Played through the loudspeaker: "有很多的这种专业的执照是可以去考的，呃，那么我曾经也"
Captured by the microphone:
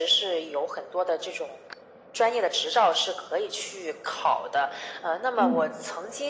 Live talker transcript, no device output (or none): 嗯。